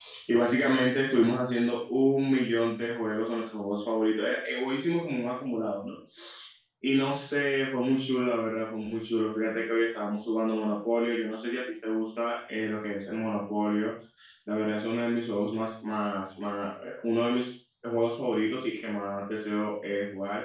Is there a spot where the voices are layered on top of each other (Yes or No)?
No